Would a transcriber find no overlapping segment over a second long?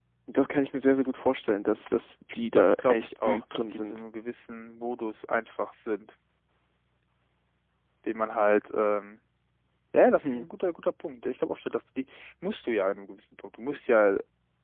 No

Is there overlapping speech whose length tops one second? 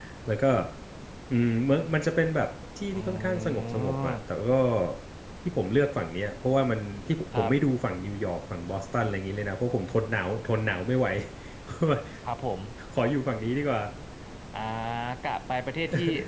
Yes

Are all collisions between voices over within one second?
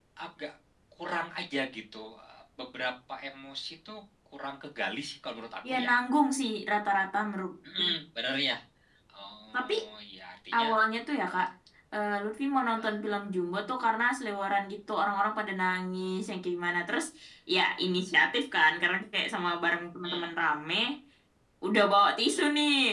Yes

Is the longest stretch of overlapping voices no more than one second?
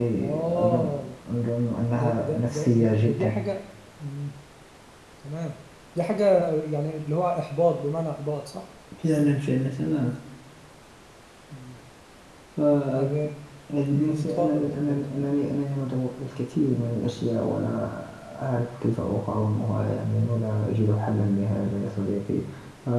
No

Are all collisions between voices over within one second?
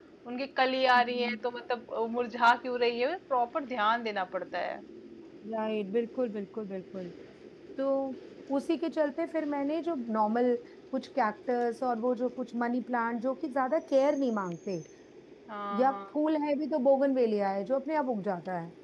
Yes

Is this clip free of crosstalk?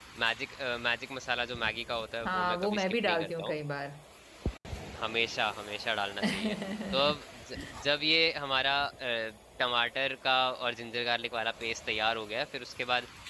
No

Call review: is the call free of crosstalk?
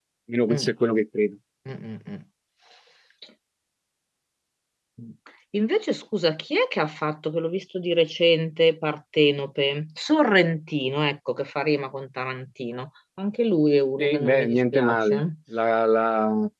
No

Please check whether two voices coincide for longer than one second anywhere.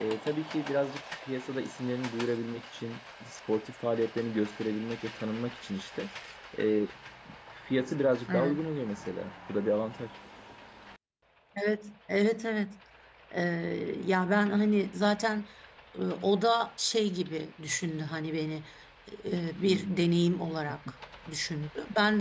No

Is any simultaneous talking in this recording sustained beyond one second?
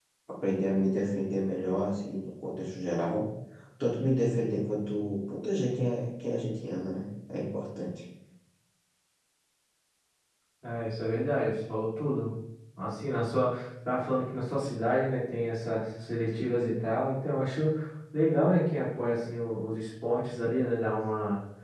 No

